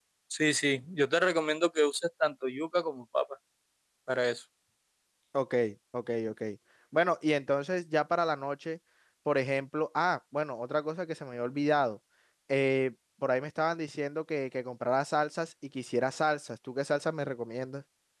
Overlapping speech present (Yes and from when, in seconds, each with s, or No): No